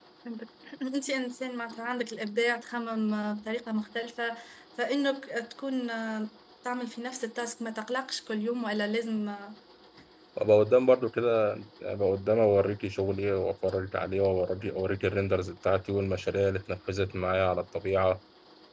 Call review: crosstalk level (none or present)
none